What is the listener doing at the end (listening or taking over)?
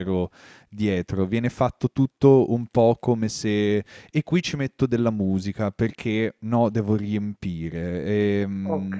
listening